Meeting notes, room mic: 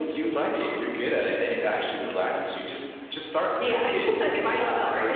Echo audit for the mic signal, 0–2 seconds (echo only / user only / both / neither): echo only